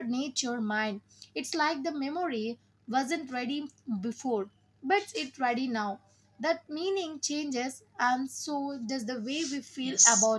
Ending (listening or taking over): taking over